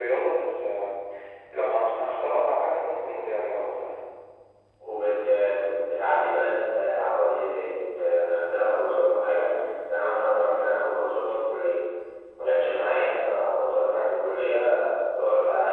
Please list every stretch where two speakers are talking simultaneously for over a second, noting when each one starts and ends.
none

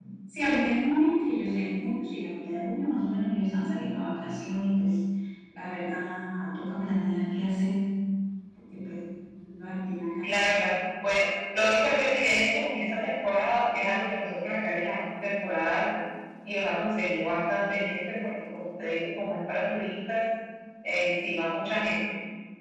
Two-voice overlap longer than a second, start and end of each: none

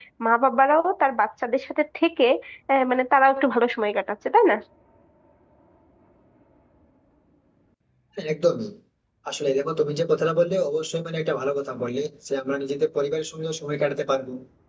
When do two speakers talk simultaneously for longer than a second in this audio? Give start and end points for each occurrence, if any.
none

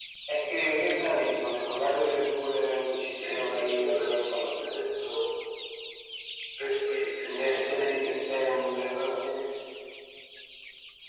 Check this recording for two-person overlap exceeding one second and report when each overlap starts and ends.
3.2-4.5, 7.2-9.1

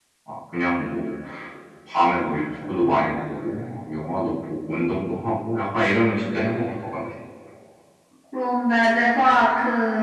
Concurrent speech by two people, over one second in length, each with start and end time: none

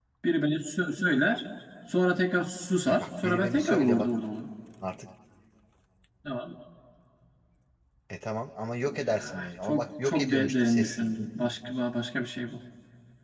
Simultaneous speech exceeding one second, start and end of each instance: 2.9-4.1, 8.9-11.3

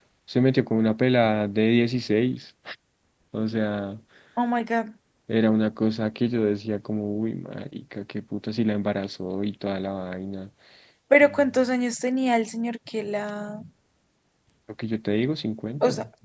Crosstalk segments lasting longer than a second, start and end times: none

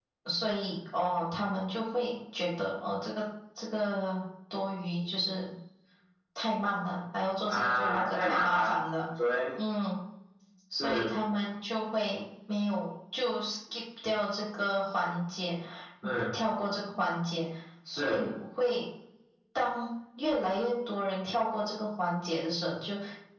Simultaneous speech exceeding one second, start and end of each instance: 7.5-8.7

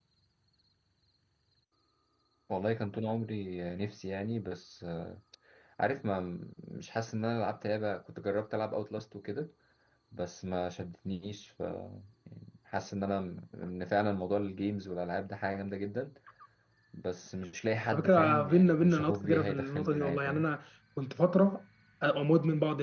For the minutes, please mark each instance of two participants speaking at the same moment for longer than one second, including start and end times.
17.9-20.4

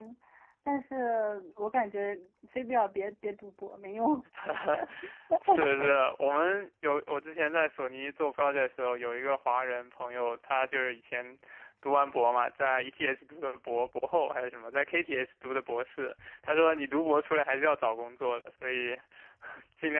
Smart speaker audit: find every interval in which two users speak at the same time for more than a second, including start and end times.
none

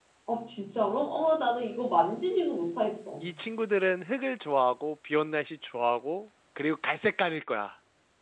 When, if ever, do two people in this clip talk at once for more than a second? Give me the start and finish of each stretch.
none

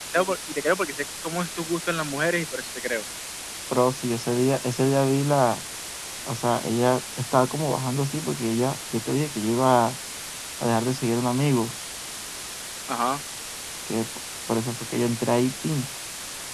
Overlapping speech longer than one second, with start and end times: none

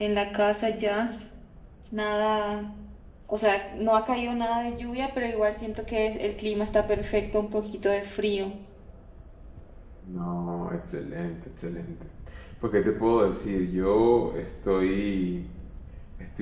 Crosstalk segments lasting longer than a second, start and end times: none

